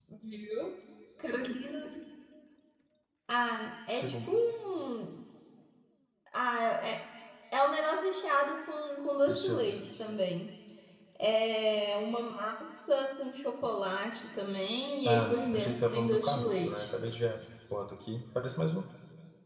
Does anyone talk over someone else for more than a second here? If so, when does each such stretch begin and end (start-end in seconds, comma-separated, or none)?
15.1-16.9